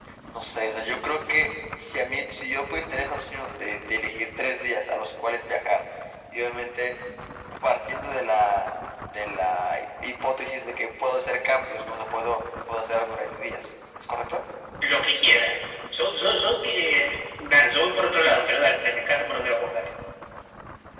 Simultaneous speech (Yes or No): No